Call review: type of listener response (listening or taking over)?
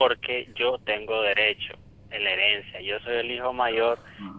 listening